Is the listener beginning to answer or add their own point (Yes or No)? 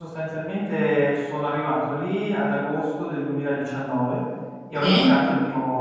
No